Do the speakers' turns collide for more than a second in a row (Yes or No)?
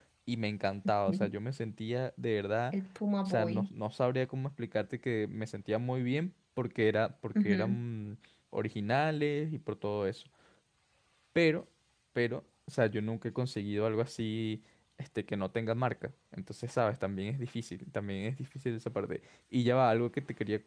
No